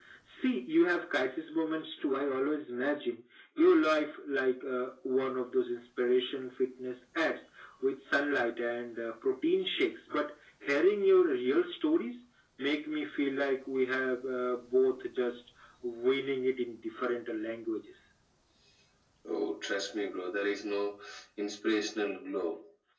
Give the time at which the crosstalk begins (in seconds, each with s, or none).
none